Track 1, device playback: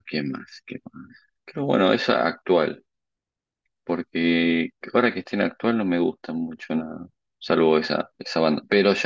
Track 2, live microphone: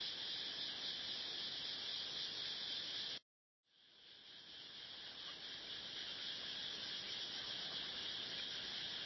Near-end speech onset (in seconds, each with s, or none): none